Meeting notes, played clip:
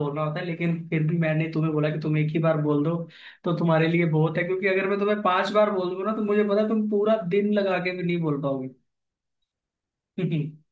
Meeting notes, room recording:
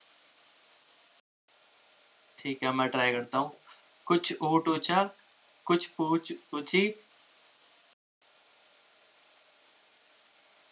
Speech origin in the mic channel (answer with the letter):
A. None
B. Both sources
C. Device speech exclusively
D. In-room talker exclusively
D